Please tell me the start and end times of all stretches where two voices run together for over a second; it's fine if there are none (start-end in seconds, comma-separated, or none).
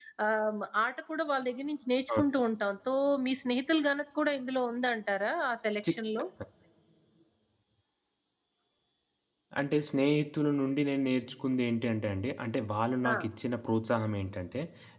none